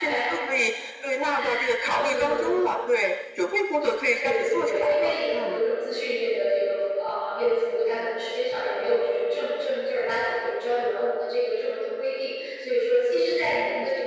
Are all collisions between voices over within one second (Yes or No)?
No